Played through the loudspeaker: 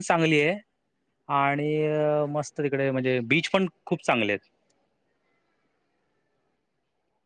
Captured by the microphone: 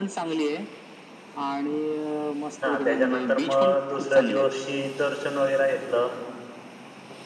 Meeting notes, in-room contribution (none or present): present